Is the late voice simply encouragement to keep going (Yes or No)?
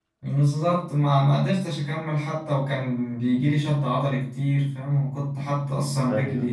Yes